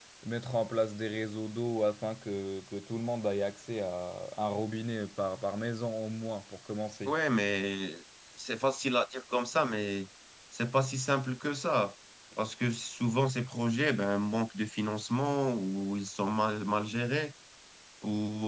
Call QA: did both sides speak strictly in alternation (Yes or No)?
Yes